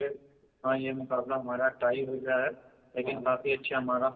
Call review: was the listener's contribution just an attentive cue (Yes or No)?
Yes